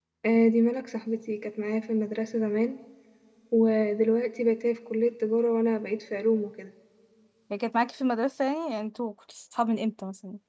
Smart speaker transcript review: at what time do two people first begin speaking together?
none

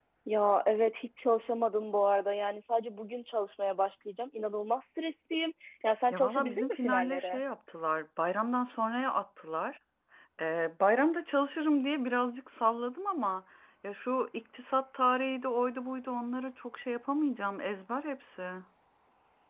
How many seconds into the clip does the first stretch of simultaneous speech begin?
6.1 s

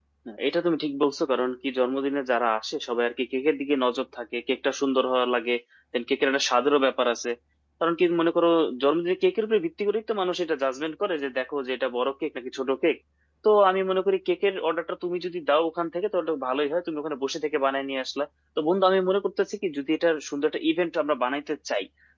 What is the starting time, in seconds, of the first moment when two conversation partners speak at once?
none

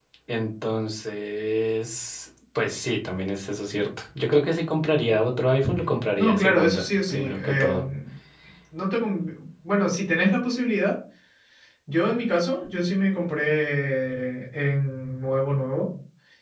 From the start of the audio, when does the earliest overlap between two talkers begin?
6.2 s

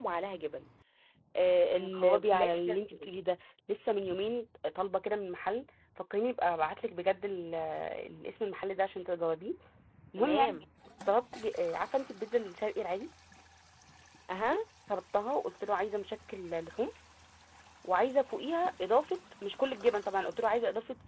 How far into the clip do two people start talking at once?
1.8 s

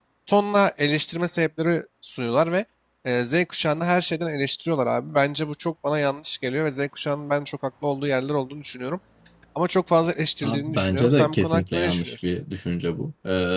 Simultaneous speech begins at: 10.4 s

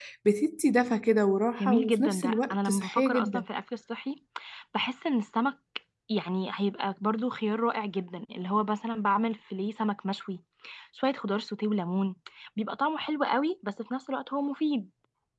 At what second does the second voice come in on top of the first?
1.6 s

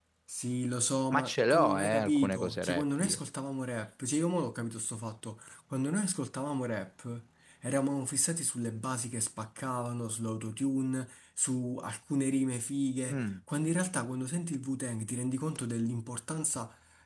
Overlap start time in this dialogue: 1.1 s

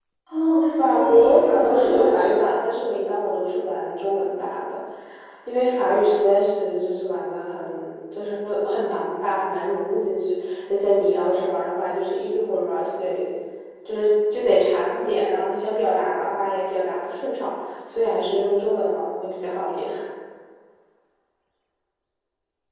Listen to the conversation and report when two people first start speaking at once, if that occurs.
0.8 s

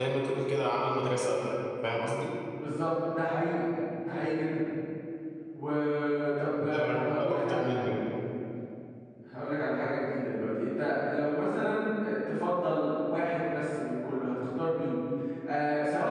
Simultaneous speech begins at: 6.6 s

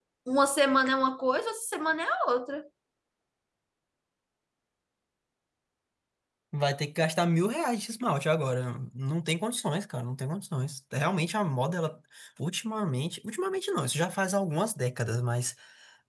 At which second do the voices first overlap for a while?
none

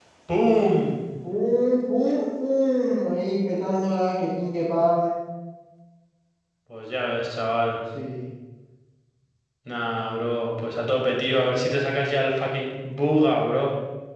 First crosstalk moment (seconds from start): none

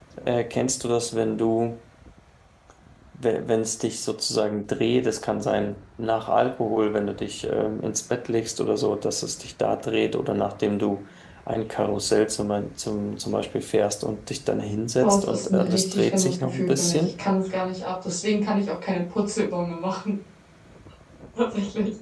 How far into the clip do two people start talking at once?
15.0 s

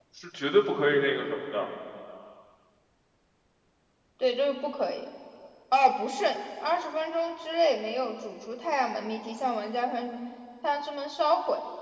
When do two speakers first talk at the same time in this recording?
none

